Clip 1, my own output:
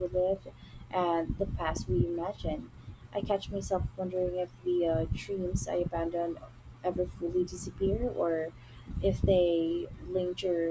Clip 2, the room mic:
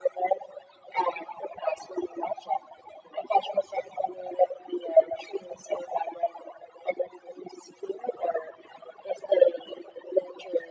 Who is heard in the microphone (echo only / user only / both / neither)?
echo only